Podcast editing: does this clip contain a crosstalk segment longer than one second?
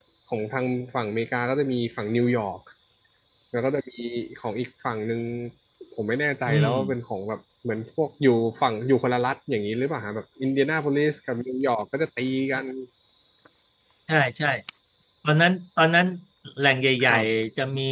No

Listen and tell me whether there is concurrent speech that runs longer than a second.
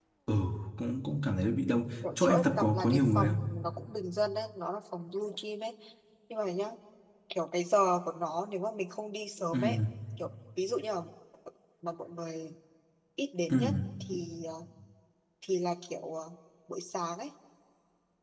Yes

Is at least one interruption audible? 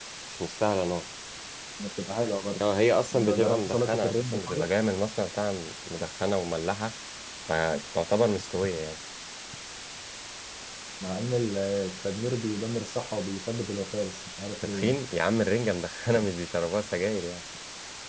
Yes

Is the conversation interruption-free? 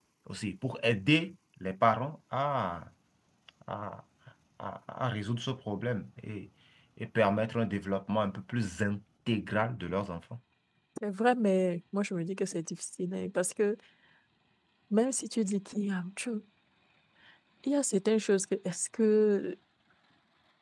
Yes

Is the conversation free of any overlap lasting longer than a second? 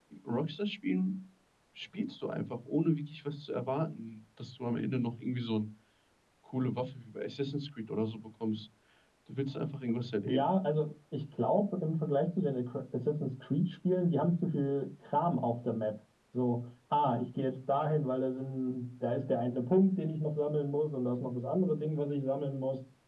Yes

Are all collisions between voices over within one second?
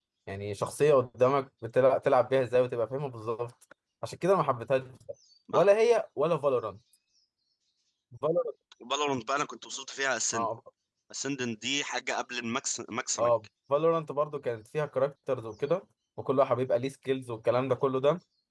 Yes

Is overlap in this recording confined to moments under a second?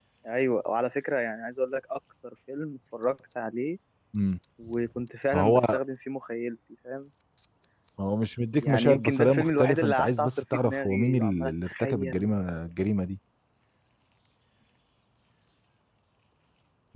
No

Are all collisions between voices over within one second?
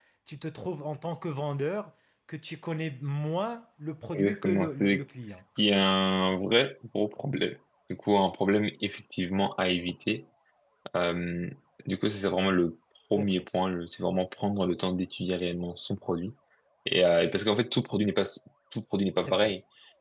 No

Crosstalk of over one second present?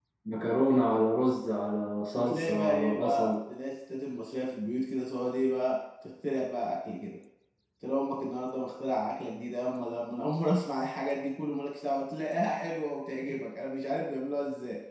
Yes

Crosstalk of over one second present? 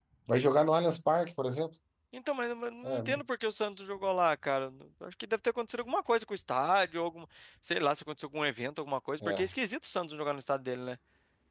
No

